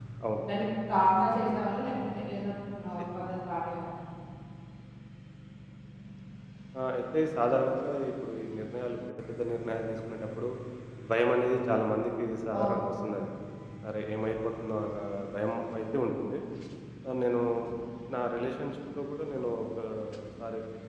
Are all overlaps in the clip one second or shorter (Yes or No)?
Yes